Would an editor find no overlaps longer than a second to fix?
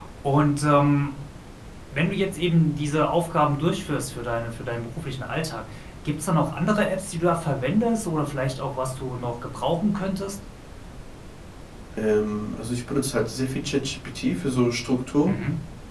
Yes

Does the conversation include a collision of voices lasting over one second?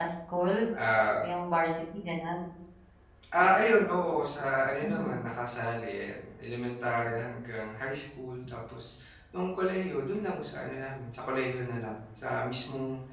No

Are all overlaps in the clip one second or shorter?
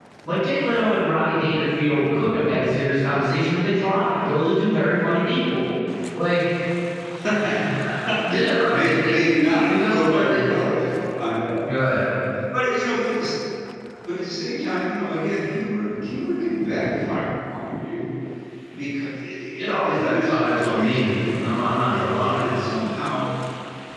No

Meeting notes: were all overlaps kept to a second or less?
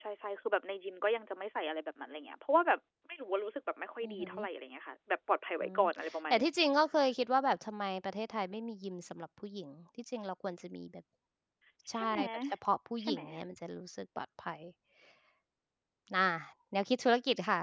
Yes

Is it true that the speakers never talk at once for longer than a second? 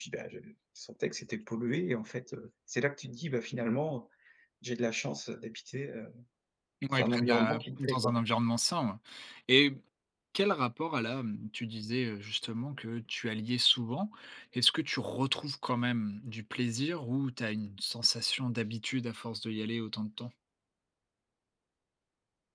No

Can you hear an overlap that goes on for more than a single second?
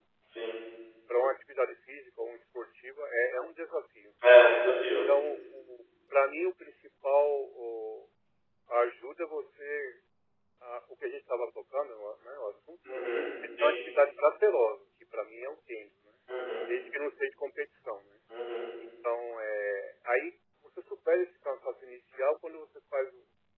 No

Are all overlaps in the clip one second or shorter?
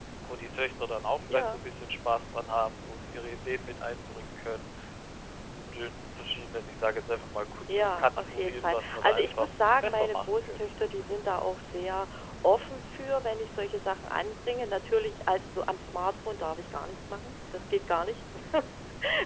No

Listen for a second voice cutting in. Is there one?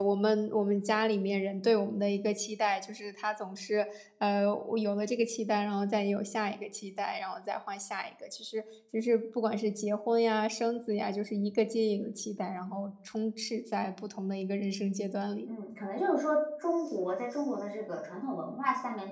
No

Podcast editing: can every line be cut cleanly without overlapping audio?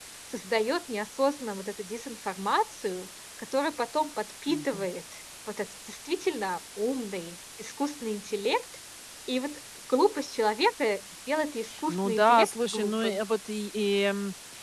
No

